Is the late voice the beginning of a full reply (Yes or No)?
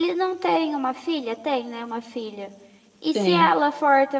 No